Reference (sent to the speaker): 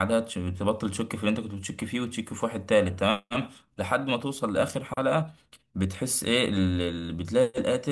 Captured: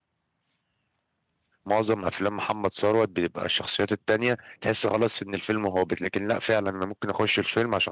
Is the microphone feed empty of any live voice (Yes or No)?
No